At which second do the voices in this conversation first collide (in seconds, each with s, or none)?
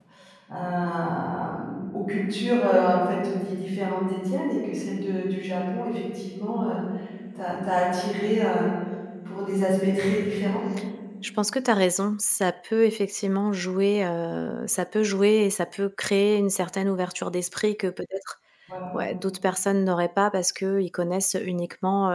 none